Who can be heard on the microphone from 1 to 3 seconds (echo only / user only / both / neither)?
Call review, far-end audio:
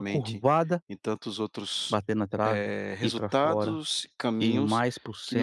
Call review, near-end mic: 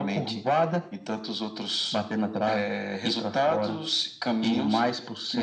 echo only